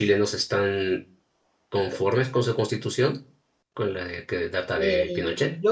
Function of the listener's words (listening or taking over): taking over